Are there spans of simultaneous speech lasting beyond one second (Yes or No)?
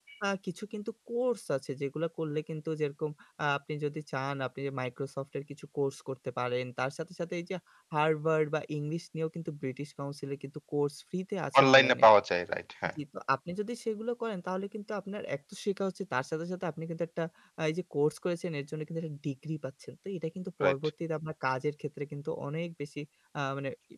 No